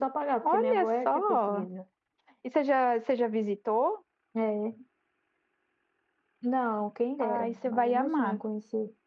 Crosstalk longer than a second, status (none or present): present